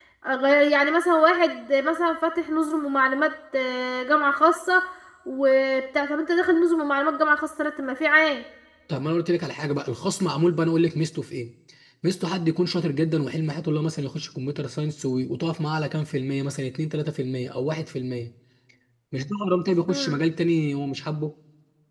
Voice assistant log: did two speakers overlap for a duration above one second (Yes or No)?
No